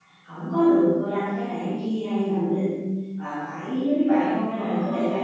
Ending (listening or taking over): taking over